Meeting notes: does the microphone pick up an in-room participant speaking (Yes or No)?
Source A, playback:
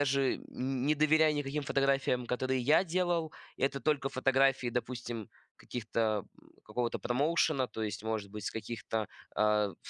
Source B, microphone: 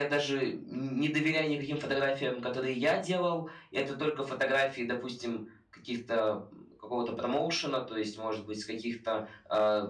No